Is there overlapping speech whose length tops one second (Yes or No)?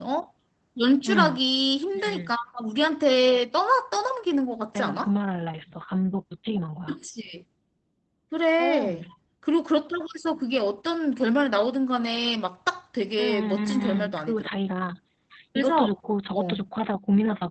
Yes